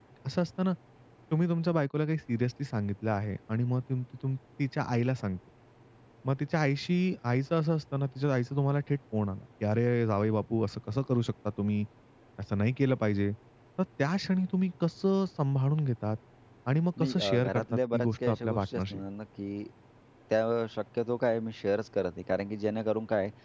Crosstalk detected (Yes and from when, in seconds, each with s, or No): Yes, from 17.0 s